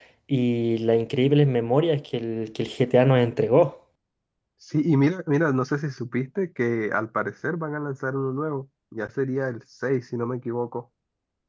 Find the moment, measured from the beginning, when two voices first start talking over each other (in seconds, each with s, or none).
none